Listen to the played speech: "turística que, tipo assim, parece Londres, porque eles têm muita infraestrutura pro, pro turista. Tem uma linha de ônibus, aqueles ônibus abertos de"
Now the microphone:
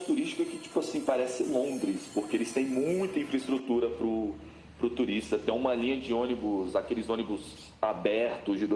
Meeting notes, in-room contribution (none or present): none